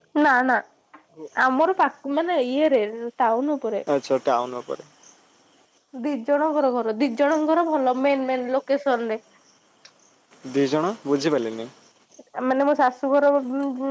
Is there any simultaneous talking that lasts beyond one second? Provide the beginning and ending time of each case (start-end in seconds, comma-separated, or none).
none